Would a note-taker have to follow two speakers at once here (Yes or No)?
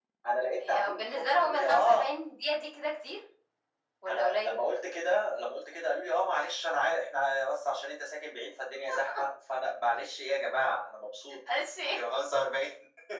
Yes